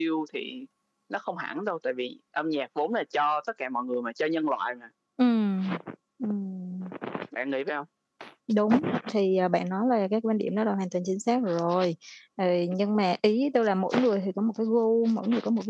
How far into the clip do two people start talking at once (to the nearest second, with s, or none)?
none